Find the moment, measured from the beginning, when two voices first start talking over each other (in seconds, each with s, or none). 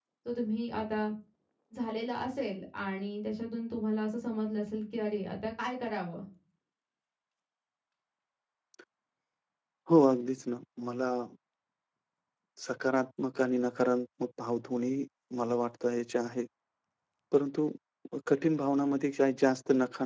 none